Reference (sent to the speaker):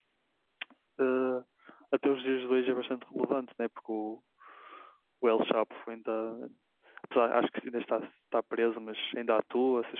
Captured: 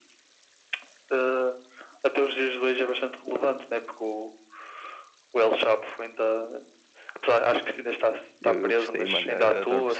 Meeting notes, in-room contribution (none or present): present